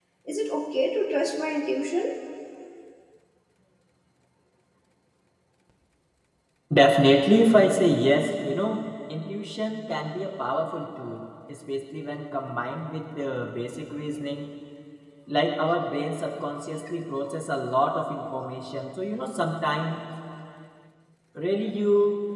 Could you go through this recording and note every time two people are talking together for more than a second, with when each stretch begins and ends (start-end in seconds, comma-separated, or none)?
none